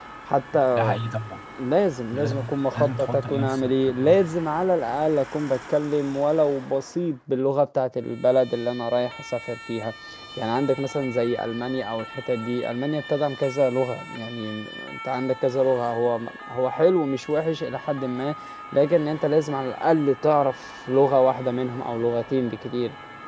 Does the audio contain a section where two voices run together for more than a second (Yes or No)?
Yes